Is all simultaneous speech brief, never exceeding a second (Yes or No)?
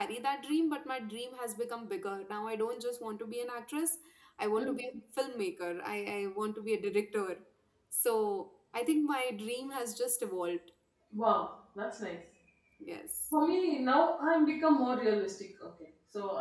Yes